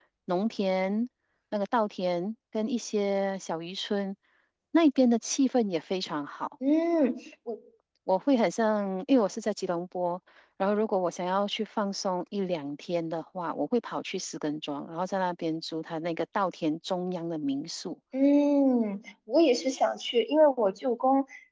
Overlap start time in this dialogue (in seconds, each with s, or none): none